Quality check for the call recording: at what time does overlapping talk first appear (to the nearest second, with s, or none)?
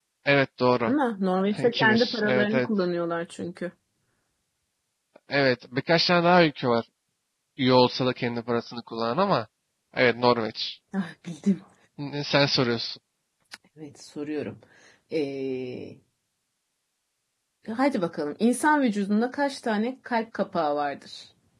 2 s